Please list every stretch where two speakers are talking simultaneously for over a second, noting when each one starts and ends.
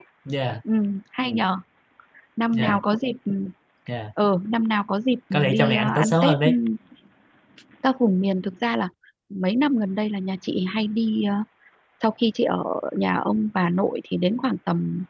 5.3-6.5

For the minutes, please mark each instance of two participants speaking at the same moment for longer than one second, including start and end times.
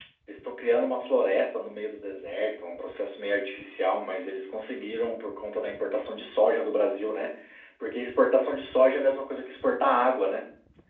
none

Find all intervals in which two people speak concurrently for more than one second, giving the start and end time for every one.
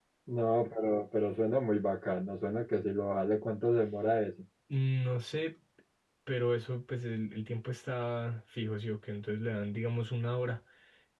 none

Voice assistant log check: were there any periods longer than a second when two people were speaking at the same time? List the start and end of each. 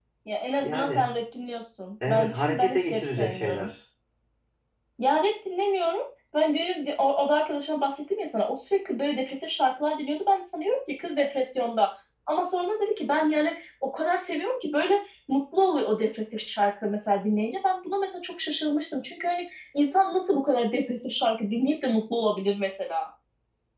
2.1-3.7

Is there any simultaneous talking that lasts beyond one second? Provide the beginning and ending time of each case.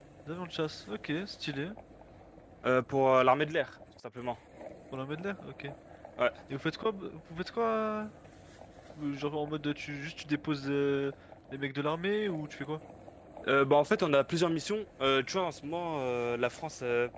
none

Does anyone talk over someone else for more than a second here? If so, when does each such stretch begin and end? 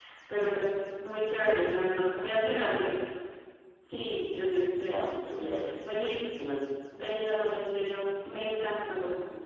none

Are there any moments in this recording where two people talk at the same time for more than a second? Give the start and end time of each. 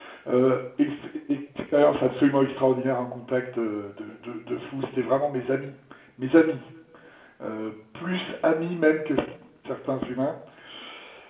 none

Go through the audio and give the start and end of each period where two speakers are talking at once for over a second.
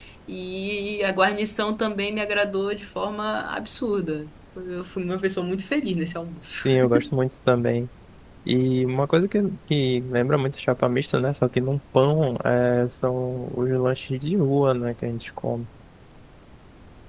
none

